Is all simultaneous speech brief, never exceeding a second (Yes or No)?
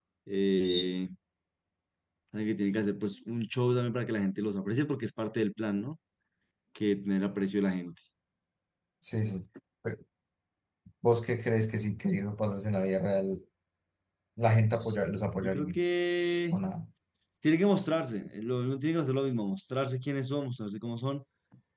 Yes